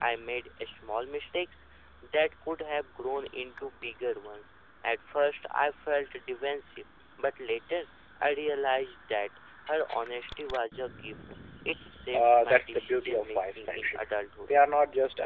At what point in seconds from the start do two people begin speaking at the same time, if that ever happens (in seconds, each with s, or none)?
12.1 s